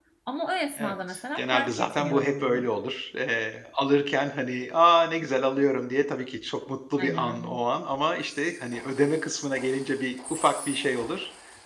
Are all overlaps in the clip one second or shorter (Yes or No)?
No